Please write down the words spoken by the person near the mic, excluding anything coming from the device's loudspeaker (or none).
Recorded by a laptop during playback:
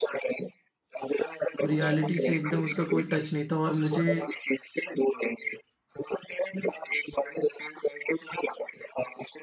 और रियलिटी से एकदम उसका कोई टच नहीं था और मुझे